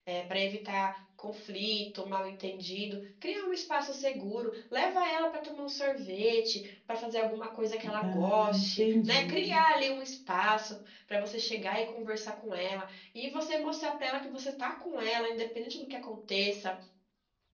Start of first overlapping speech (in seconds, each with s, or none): 8.0 s